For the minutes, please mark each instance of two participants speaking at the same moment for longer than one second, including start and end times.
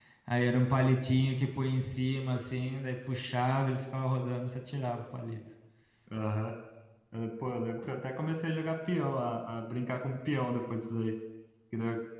none

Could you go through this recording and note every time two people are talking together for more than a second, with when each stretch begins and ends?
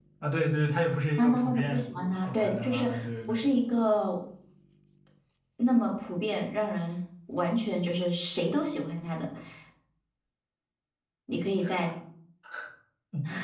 1.2-2.9

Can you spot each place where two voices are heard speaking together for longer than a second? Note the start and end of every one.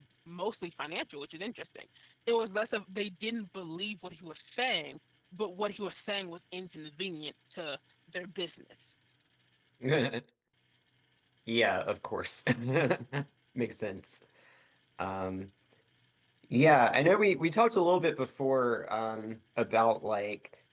none

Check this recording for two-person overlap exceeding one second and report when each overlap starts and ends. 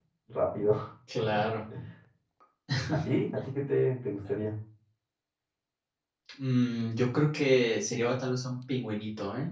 none

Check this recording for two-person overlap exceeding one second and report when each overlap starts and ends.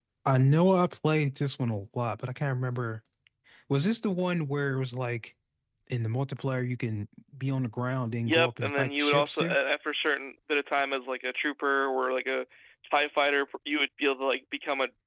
8.2-9.6

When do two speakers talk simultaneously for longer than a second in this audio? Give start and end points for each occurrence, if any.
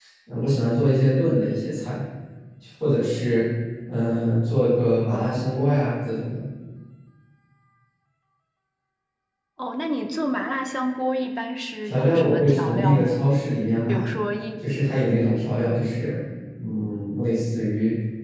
11.8-13.2

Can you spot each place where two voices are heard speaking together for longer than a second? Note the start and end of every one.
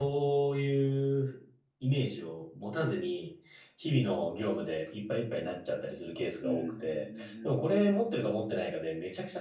6.4-8.0

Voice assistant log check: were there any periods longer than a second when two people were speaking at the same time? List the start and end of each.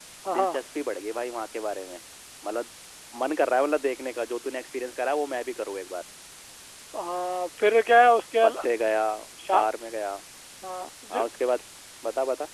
none

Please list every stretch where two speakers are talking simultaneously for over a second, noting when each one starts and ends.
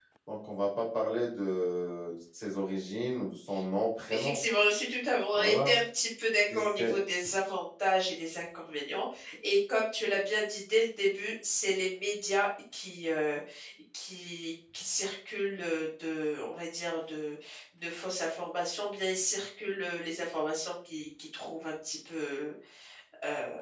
none

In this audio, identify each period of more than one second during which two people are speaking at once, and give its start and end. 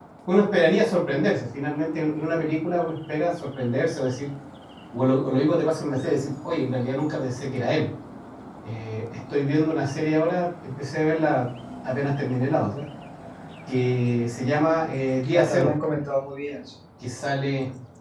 none

